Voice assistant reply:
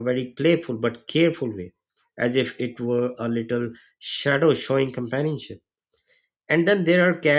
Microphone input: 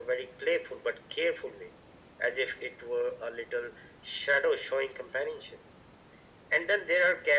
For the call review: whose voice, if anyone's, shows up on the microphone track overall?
echo only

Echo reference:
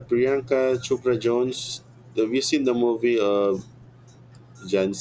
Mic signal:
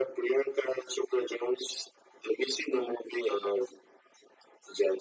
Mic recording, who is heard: echo only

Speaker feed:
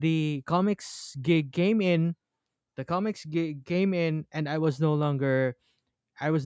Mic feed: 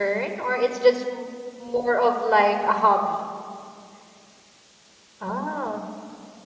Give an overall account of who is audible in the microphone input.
user only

